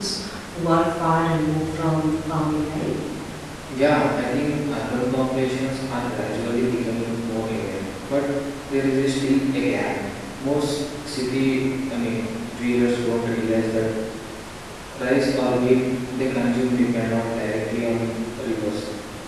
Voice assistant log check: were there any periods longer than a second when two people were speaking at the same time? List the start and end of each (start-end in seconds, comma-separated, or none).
none